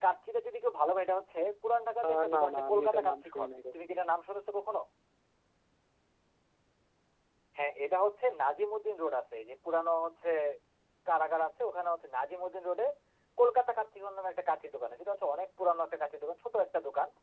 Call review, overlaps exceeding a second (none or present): present